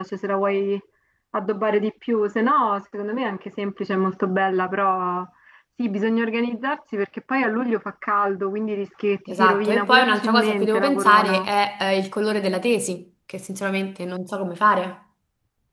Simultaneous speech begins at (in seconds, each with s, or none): 9.3 s